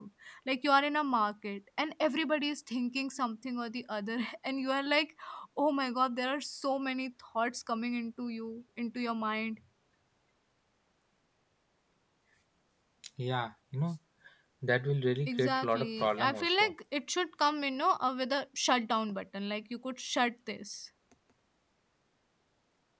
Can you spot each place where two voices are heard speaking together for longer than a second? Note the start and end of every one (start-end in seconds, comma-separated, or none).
15.3-16.7